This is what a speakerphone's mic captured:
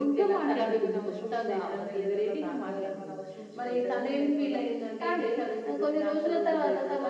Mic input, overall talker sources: both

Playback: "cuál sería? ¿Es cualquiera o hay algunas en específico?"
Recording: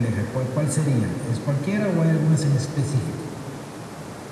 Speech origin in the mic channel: echo only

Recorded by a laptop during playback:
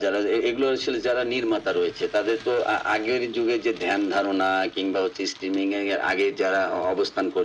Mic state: echo only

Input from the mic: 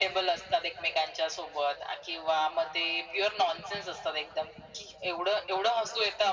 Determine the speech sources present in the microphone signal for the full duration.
echo only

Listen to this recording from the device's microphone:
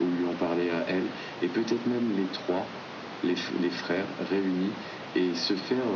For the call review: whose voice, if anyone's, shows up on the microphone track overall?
echo only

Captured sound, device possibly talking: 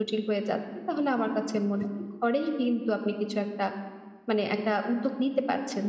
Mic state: user only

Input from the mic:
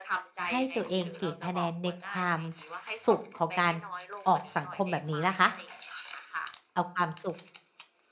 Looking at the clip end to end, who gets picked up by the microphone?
both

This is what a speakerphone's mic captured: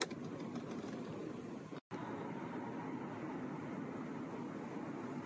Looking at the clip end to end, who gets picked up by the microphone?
neither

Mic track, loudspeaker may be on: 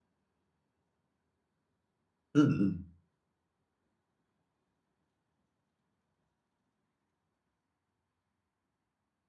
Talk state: user only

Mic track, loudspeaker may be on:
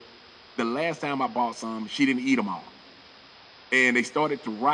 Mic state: echo only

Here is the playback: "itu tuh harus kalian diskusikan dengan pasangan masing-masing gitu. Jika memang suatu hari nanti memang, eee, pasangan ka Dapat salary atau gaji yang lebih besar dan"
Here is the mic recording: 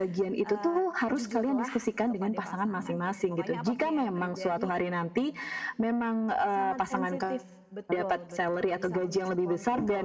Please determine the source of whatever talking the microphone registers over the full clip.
both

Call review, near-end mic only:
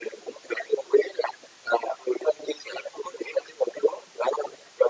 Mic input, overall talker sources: echo only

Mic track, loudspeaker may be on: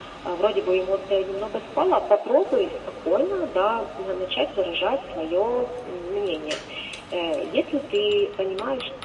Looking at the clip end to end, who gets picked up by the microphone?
echo only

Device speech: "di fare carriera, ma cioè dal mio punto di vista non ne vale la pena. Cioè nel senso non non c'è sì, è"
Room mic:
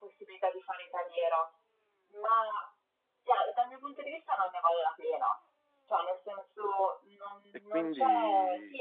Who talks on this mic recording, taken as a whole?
both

